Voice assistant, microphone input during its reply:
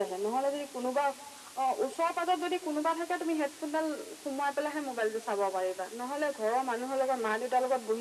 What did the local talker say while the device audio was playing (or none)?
none